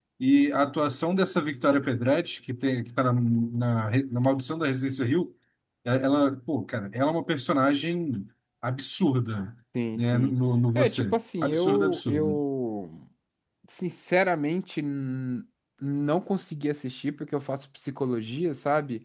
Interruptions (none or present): present